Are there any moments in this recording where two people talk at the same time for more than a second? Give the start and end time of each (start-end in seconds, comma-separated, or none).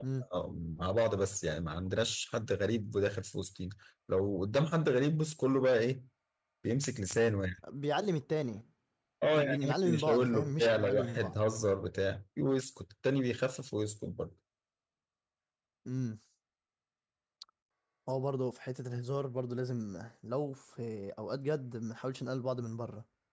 9.4-11.4